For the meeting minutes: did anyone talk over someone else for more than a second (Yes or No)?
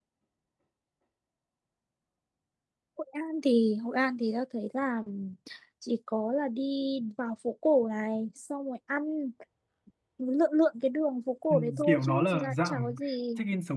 Yes